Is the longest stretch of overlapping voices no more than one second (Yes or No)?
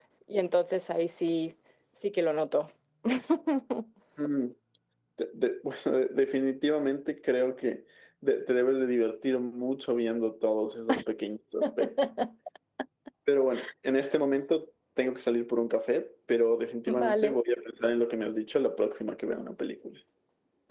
Yes